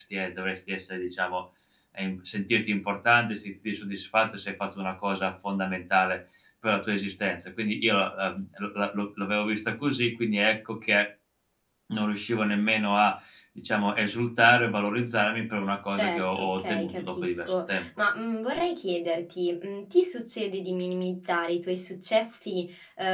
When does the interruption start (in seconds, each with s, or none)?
15.9 s